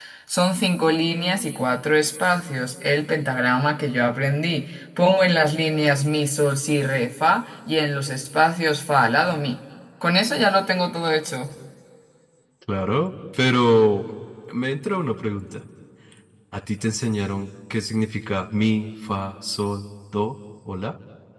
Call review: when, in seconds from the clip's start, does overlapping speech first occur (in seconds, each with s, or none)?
none